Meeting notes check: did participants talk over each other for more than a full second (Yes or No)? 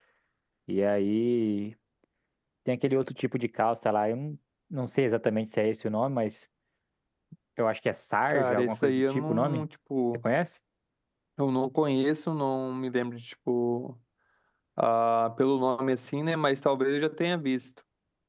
Yes